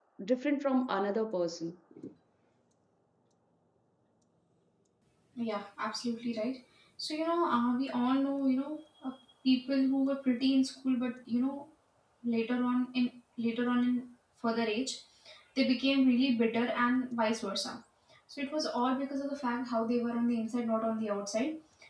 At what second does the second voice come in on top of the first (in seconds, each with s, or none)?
none